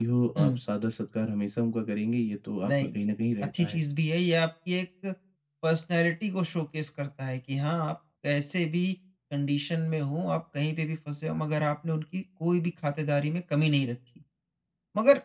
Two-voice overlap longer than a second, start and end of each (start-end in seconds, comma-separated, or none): none